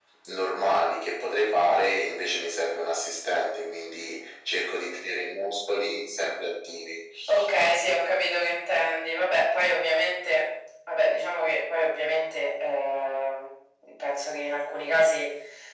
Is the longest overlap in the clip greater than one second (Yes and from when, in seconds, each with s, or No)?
No